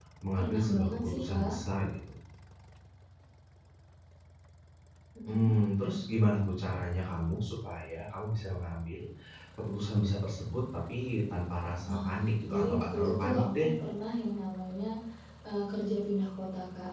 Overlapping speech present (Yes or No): Yes